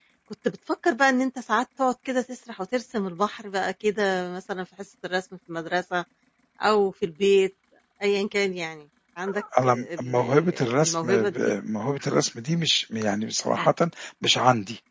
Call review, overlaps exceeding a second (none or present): present